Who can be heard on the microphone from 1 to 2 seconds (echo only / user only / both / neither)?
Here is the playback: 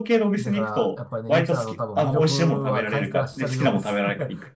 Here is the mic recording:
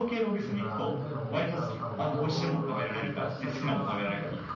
both